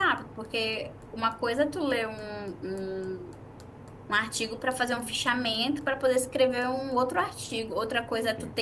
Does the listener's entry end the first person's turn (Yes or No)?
No